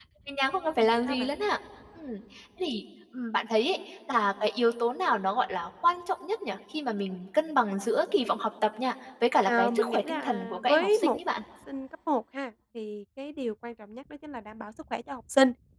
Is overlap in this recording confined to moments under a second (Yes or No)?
No